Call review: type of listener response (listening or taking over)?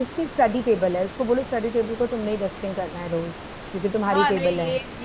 taking over